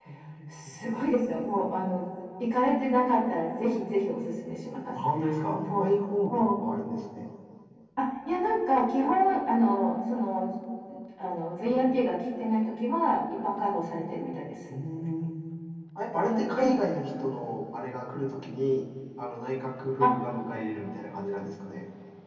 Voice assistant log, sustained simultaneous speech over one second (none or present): none